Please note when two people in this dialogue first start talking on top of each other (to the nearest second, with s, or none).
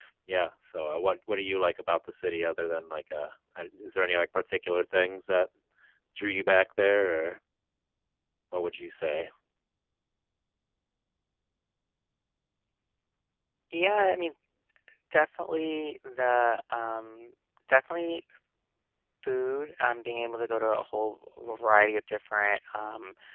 none